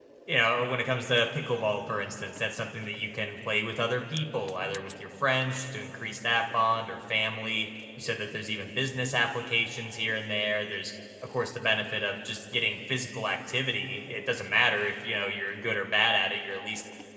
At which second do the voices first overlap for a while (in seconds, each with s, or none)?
none